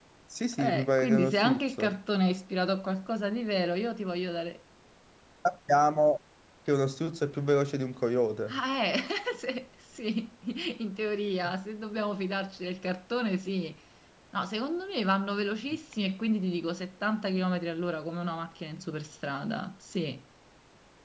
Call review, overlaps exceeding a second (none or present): present